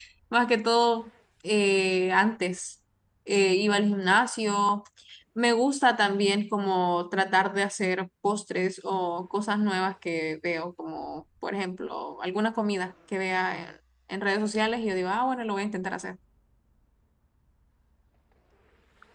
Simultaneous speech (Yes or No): No